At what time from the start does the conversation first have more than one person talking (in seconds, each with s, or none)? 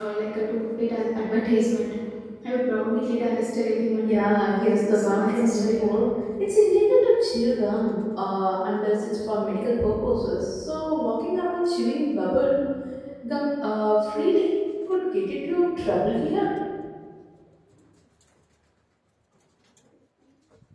4.0 s